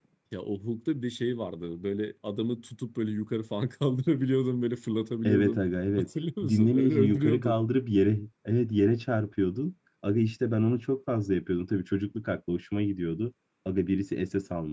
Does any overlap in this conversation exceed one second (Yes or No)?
Yes